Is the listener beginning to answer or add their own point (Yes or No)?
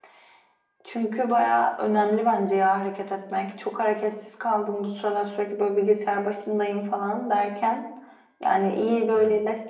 No